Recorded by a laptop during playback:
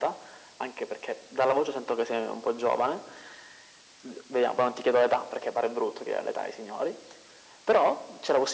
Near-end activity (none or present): none